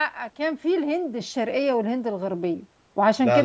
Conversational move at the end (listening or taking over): listening